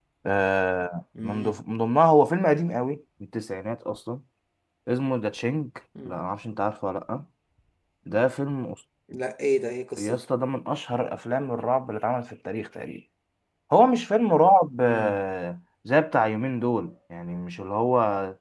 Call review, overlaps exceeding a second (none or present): none